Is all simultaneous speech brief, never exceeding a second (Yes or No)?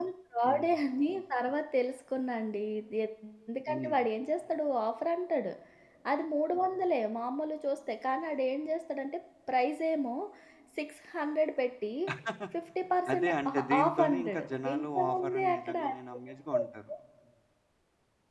No